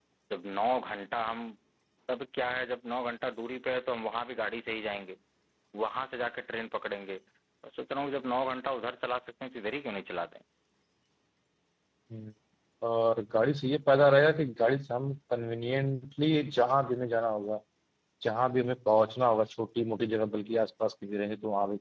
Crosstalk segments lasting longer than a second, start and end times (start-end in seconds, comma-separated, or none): none